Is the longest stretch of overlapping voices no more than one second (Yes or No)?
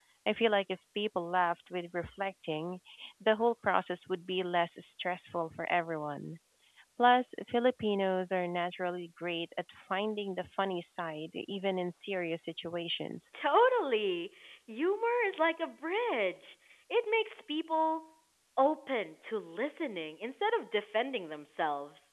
Yes